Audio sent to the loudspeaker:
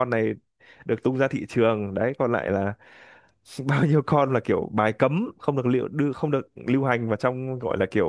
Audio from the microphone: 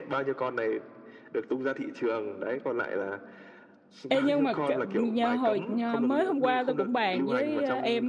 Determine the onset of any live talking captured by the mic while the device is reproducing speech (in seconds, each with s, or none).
4.1 s